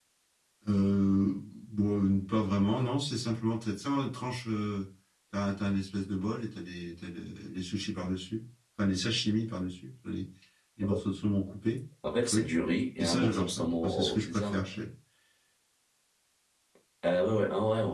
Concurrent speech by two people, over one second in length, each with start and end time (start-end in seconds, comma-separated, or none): 13.0-14.6